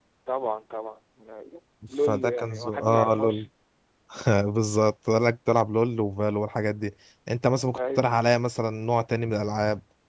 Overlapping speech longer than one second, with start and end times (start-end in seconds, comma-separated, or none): 2.0-3.5